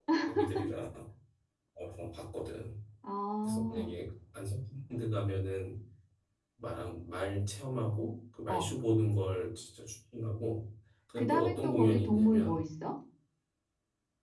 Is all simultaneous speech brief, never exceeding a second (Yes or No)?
No